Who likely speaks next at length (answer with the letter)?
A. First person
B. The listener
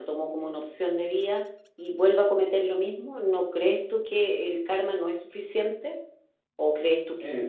B